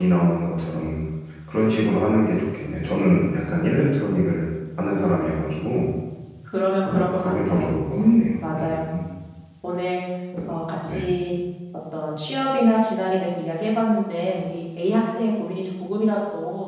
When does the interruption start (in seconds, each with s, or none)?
6.8 s